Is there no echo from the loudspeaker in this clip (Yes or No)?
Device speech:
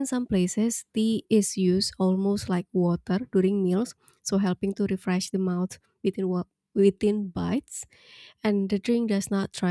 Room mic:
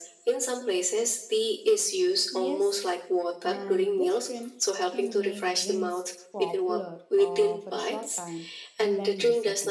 No